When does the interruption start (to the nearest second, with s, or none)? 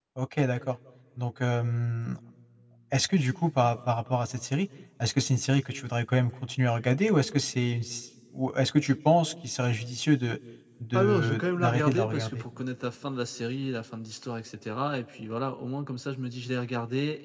11 s